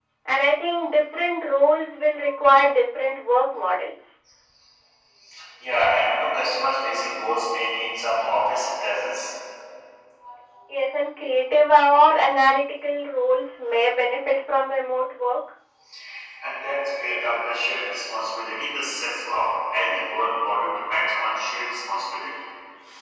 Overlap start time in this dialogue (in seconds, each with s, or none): none